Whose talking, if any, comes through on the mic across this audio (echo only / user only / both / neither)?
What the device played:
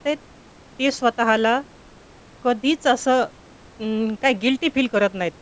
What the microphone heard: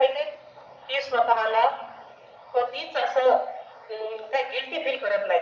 echo only